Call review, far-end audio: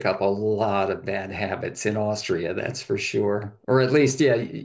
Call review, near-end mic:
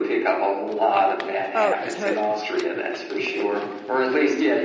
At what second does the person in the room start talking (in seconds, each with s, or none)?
1.5 s